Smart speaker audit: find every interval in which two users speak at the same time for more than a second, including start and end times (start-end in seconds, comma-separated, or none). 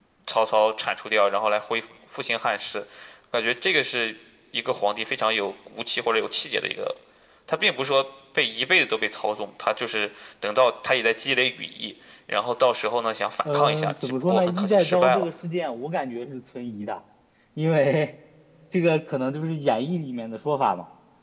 13.4-15.2